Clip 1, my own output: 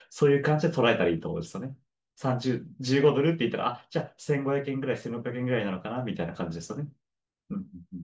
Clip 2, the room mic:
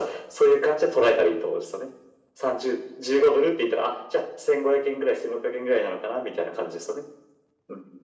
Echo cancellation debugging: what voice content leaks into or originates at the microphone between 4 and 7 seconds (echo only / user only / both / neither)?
echo only